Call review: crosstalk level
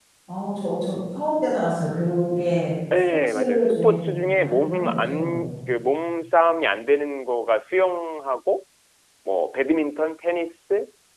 present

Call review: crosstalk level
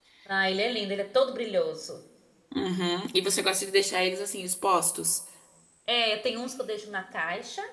none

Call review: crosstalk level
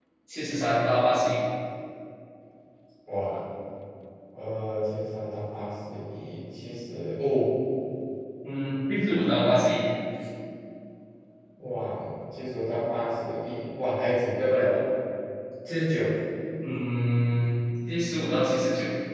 none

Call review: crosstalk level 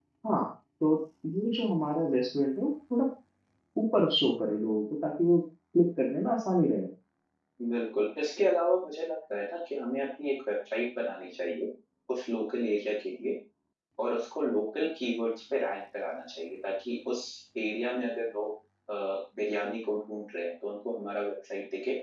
none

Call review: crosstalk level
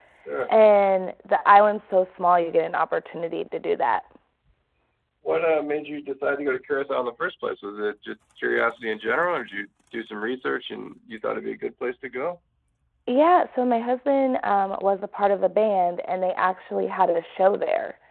none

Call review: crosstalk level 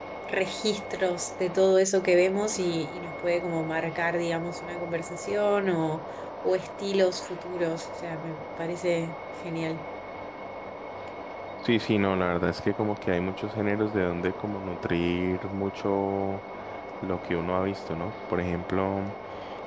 none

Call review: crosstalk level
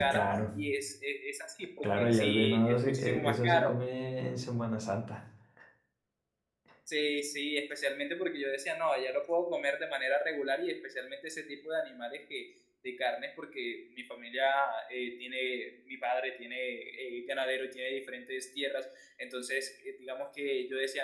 present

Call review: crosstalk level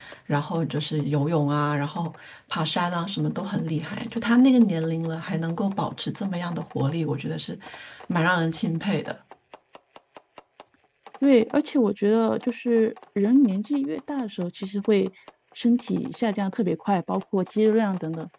none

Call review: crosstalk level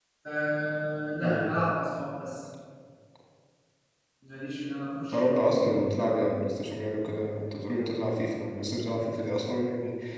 present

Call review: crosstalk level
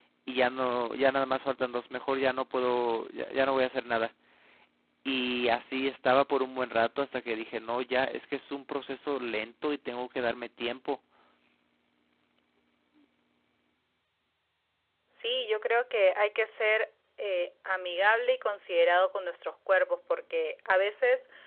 none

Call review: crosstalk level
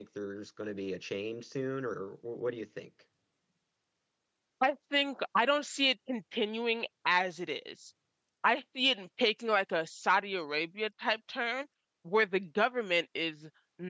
none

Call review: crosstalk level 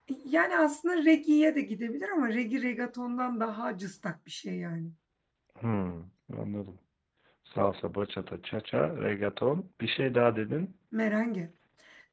none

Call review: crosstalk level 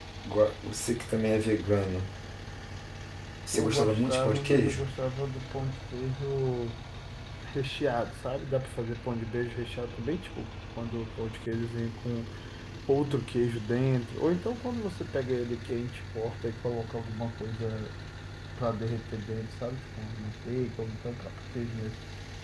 present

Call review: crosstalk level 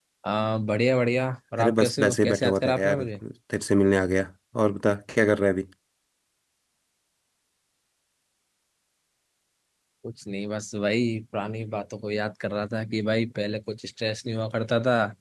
present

